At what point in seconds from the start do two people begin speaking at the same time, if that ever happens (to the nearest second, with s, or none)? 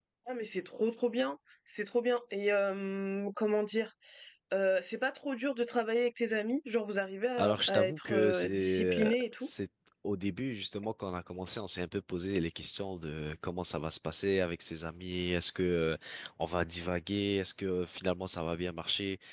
7 s